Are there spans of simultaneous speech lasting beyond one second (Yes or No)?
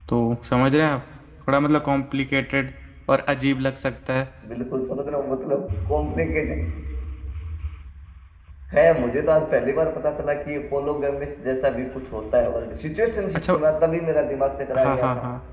No